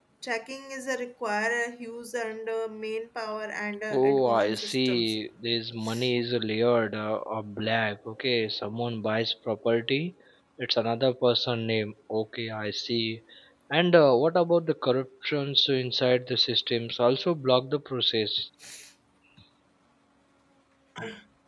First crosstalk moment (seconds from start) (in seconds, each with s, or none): 3.9 s